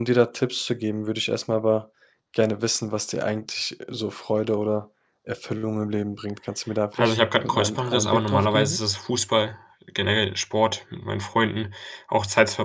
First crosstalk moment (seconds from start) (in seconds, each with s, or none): 7.0 s